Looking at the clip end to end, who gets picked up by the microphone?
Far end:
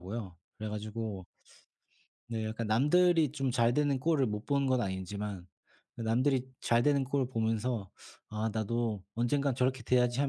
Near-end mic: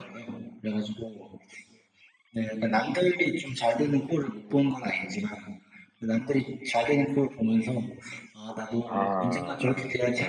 both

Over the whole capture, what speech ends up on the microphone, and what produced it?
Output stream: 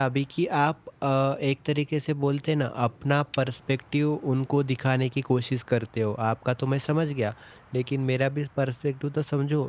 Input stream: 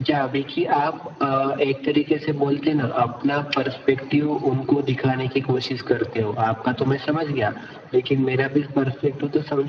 echo only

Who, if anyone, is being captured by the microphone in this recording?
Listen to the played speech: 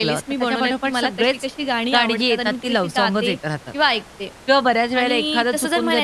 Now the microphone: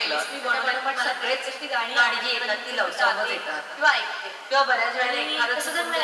echo only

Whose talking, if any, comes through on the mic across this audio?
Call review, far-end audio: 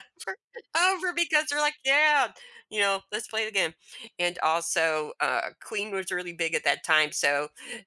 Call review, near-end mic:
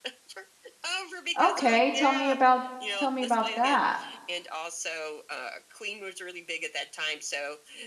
both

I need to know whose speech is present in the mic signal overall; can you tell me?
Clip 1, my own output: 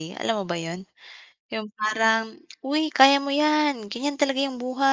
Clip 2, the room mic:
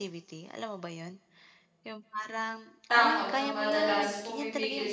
both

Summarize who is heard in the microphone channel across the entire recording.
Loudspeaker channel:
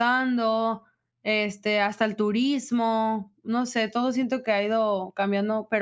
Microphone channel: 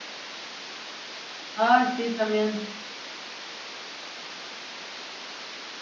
user only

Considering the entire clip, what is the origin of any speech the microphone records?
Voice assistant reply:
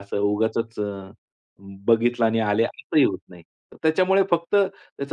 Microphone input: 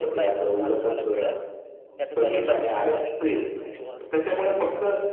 both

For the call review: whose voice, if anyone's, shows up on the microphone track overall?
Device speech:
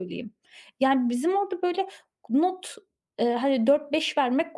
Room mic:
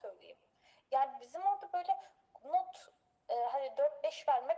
echo only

